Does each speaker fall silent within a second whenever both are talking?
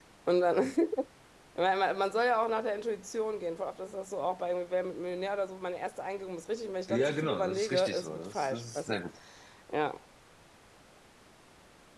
No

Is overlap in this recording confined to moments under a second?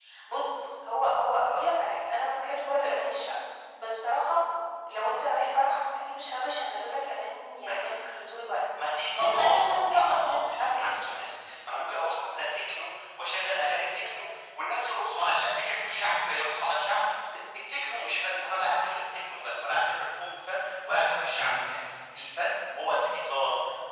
No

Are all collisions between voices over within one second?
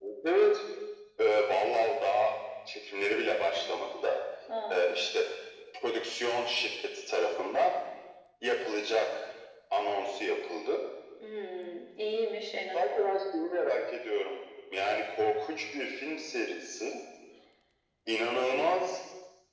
Yes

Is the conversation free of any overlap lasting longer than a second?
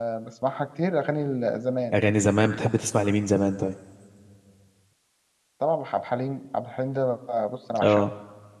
Yes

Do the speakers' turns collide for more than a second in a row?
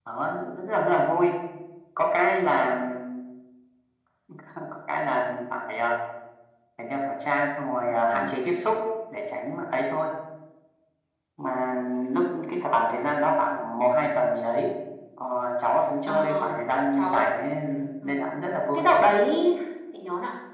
No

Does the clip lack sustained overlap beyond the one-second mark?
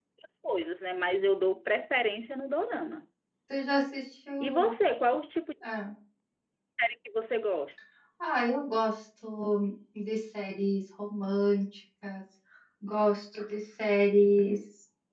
Yes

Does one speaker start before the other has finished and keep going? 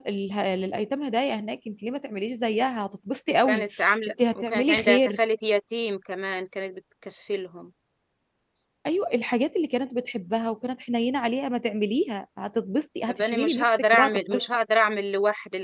Yes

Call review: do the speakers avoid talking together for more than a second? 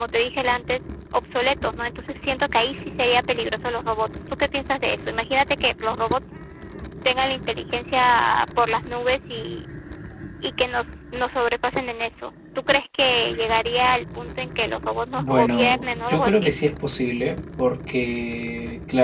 No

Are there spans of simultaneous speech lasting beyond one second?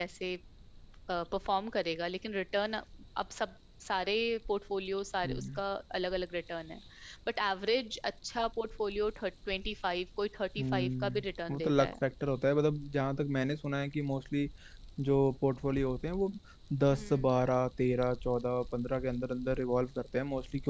Yes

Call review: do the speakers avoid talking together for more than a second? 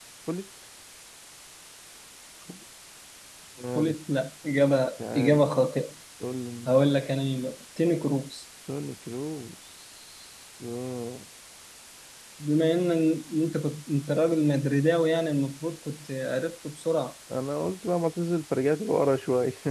Yes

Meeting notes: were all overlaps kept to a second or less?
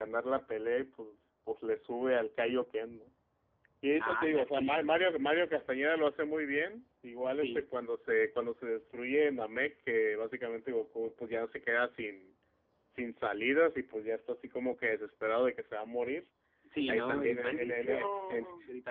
No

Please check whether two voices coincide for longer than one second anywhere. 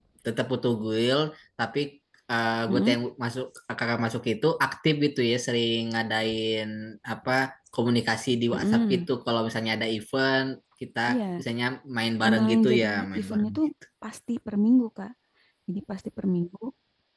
Yes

